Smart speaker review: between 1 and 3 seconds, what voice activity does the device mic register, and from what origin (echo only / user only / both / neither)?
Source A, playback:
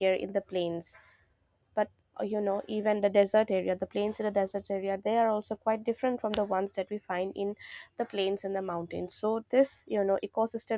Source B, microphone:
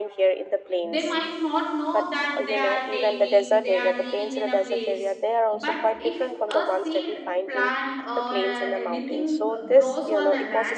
both